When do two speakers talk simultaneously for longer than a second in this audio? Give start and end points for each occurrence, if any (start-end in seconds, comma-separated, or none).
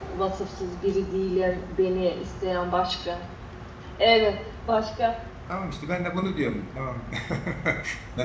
none